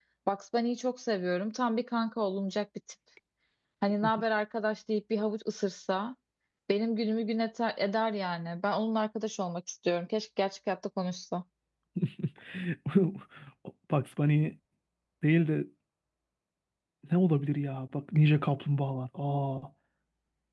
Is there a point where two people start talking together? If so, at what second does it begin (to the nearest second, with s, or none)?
none